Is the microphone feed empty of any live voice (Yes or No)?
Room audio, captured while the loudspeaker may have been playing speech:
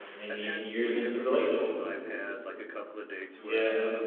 No